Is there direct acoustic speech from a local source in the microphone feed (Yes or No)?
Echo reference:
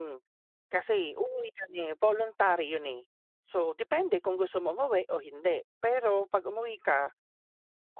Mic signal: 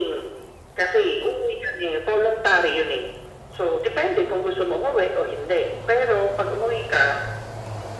No